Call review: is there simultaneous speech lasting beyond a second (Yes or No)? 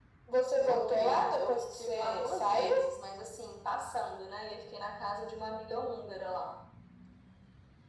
Yes